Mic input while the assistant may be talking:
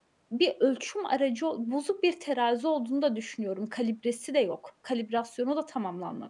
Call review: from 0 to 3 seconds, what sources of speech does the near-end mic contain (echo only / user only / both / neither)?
user only